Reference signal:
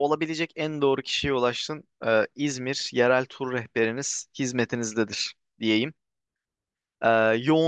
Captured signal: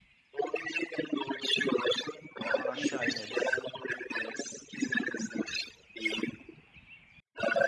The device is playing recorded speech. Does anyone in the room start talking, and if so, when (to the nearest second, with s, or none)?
2 s